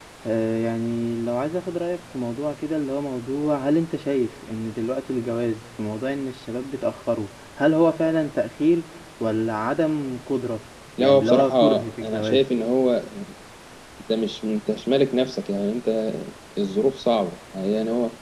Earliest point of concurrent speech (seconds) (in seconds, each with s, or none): 11.0 s